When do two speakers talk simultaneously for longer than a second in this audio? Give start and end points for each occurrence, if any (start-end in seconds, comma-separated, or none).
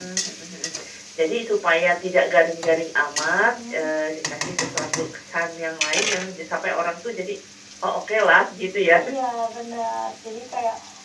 none